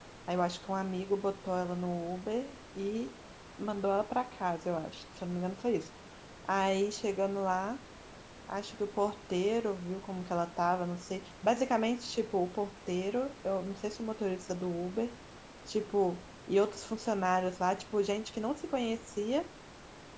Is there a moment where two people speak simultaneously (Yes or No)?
No